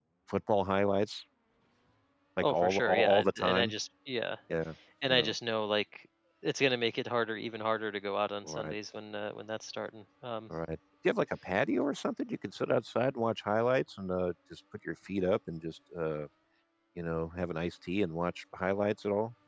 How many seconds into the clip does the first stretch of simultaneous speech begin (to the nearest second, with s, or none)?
2 s